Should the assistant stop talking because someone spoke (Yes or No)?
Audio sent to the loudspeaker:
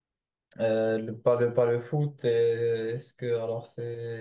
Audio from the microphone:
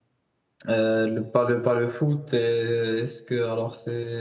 No